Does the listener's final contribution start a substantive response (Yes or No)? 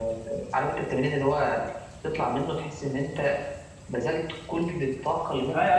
Yes